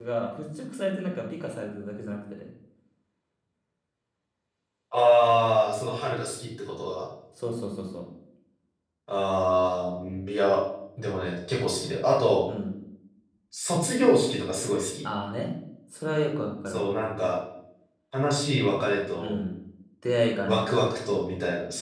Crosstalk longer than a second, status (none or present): none